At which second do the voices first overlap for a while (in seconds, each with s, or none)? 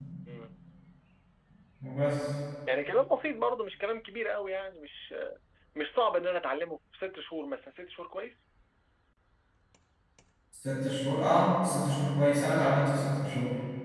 none